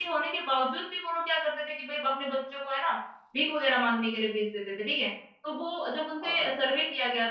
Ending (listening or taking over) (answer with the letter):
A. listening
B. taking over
A